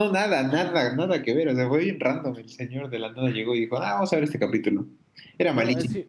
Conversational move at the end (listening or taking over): taking over